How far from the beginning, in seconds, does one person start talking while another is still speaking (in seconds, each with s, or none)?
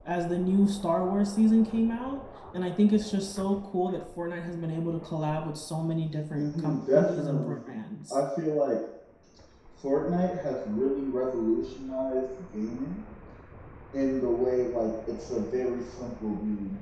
6.3 s